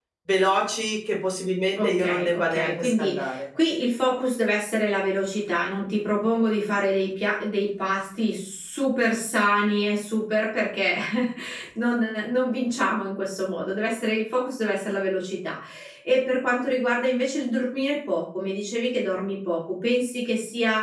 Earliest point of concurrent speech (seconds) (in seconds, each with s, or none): 1.8 s